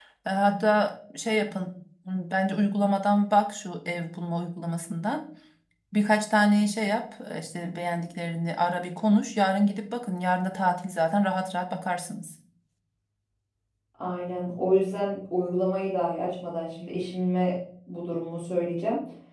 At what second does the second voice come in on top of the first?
none

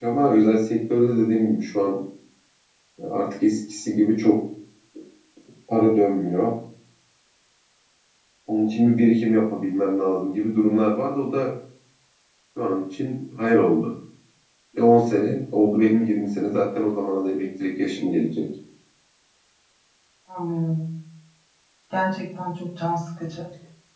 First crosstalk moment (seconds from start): none

